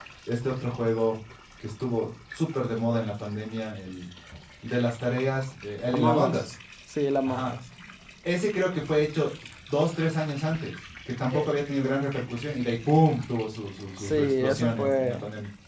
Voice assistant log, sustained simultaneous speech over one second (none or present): present